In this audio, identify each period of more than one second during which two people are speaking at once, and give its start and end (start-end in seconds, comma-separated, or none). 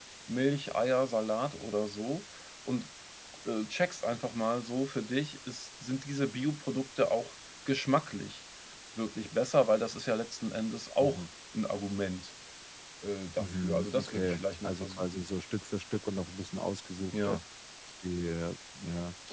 13.4-15.3